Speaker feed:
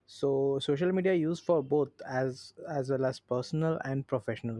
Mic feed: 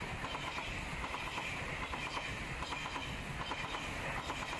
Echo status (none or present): none